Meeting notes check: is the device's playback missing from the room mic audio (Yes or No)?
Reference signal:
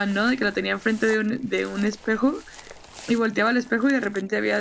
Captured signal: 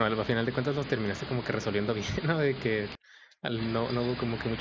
Yes